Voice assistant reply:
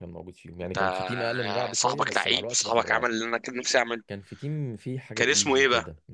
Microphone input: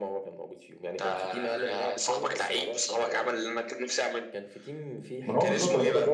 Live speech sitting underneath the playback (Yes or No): No